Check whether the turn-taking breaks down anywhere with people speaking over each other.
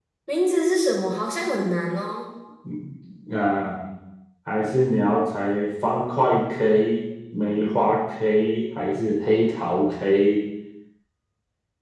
No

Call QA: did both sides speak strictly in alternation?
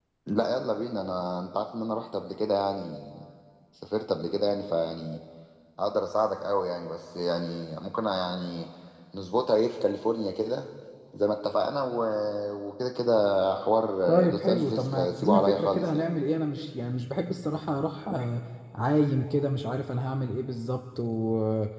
No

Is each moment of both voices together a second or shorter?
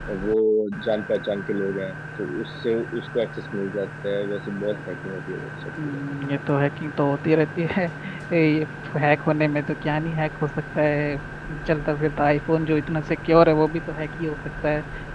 Yes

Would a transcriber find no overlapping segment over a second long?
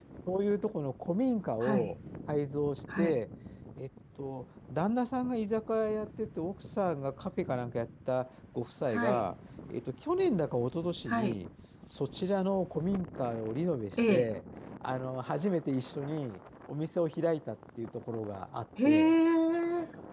Yes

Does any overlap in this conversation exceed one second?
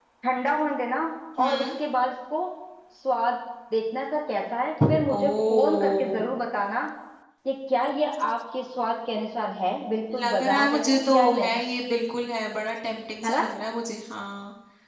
Yes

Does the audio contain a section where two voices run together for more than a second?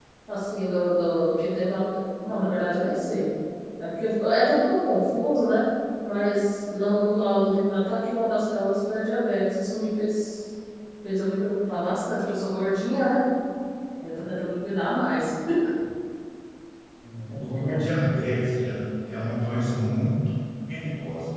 No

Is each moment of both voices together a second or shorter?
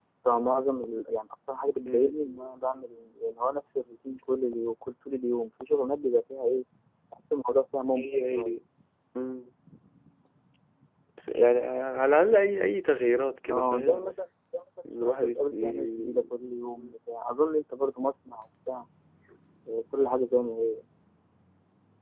No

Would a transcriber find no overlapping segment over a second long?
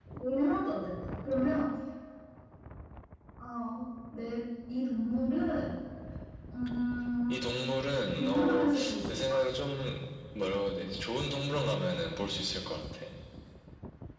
No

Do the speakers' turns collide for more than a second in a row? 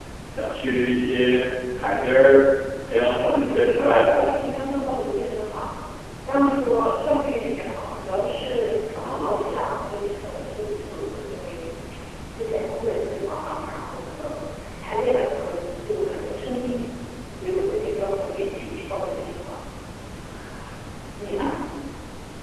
Yes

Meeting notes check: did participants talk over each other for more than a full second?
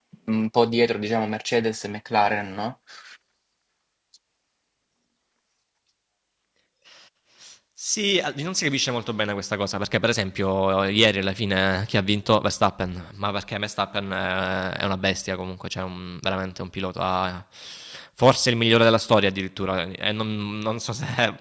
No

